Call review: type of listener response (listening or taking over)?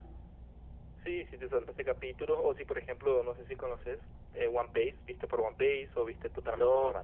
taking over